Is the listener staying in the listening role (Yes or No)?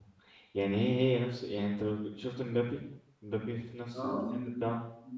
No